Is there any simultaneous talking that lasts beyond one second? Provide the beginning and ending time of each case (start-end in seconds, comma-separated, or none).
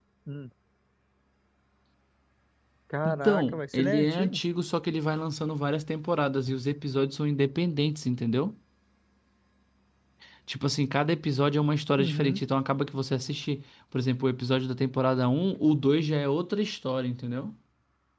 3.0-4.4